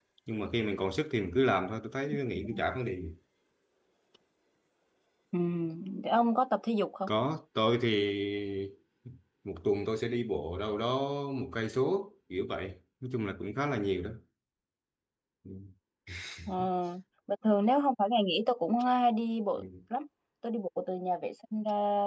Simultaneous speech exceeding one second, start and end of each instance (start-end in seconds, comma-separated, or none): none